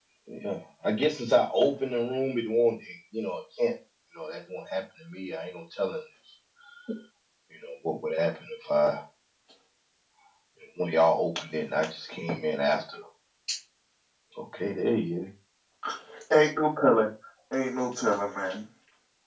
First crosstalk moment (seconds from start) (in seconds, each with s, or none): none